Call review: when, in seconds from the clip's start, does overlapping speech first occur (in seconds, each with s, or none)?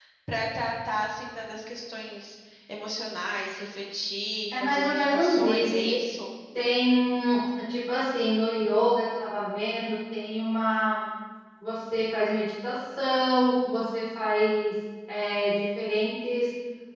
4.5 s